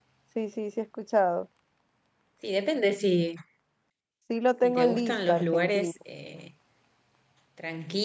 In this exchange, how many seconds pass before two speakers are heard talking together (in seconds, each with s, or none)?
4.6 s